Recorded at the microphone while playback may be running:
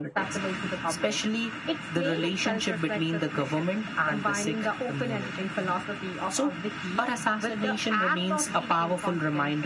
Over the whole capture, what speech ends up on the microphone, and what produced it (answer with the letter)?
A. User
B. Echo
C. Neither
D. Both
B